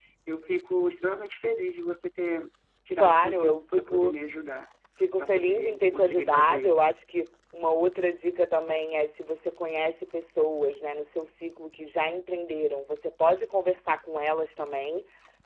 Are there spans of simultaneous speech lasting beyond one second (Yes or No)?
Yes